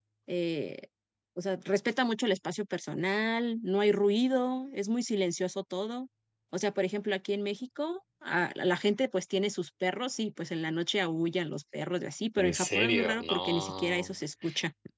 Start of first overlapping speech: 12.4 s

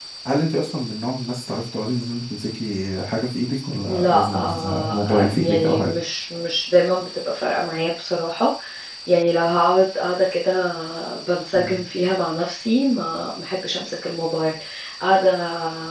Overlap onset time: 3.9 s

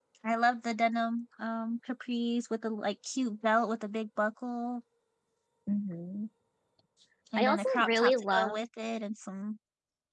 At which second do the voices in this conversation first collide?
7.4 s

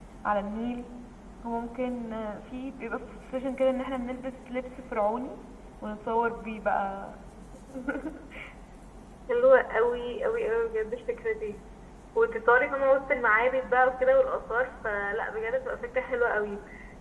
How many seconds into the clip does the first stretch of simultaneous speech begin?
none

